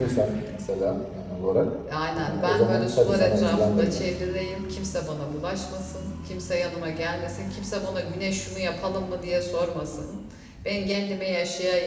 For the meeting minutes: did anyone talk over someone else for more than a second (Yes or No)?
Yes